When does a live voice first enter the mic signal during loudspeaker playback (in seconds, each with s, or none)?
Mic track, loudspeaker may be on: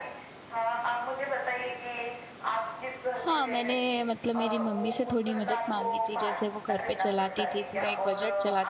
3.2 s